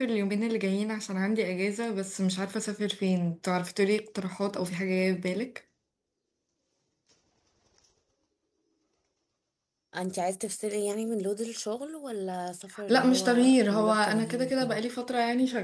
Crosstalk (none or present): present